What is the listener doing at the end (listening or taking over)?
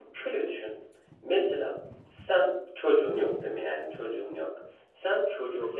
listening